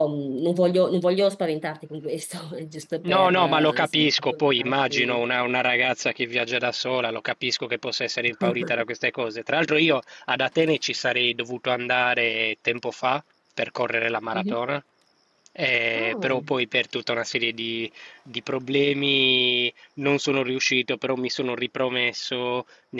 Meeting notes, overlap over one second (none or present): present